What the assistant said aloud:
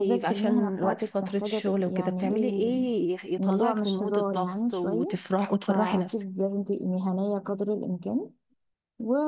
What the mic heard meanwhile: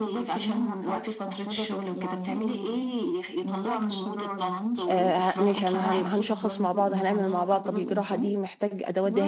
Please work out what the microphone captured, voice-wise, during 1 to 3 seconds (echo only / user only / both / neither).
echo only